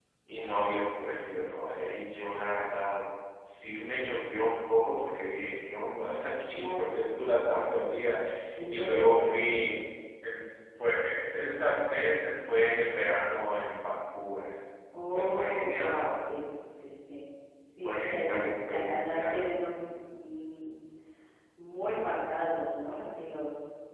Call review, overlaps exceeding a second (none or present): present